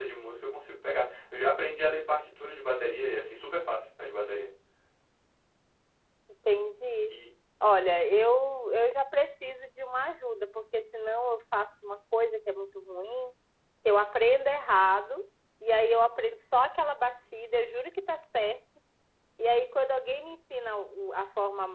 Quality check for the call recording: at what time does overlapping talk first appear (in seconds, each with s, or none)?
none